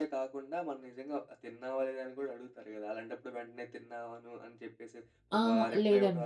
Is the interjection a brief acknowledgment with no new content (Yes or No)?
No